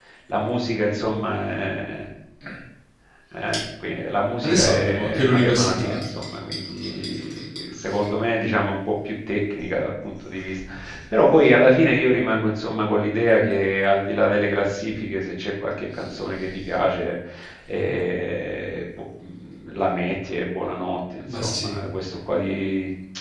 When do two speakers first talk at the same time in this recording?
4.4 s

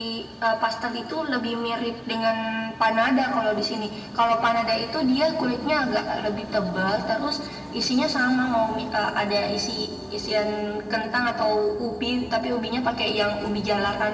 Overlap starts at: none

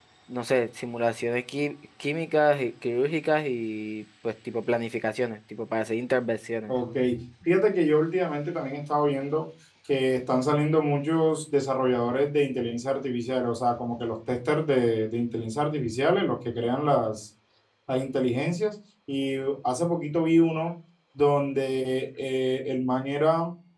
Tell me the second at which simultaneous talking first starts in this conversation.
none

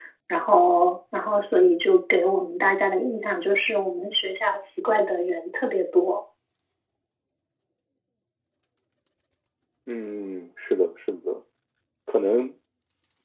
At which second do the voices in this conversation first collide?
none

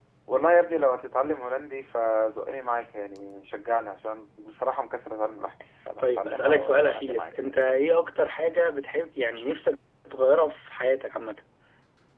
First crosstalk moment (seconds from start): 6.0 s

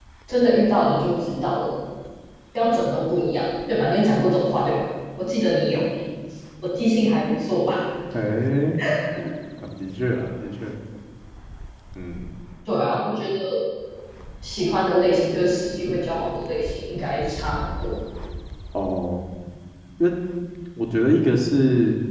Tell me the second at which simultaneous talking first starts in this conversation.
none

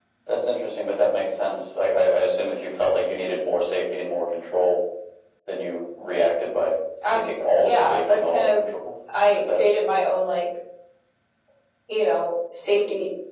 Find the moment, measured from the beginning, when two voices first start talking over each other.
7.1 s

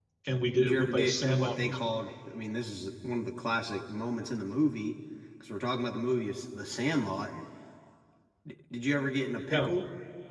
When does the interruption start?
0.6 s

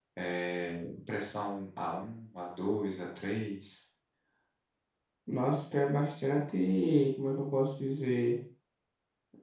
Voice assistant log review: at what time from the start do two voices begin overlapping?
none

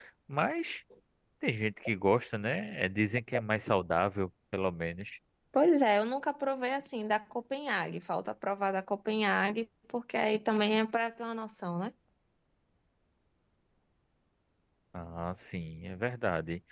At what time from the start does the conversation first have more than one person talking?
none

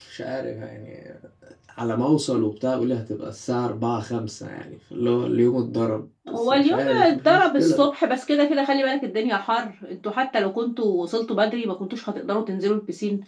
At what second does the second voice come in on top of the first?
6.3 s

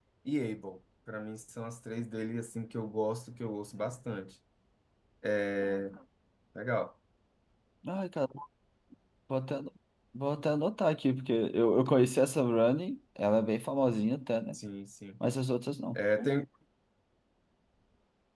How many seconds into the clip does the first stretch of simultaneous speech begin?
none

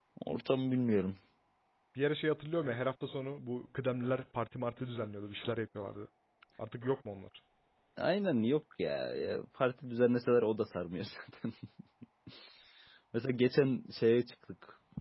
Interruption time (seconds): none

